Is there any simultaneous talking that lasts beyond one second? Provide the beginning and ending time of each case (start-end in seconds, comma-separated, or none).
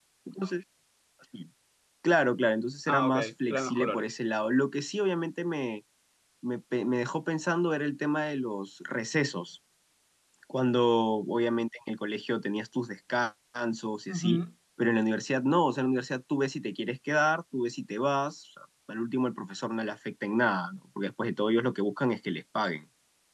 2.9-4.1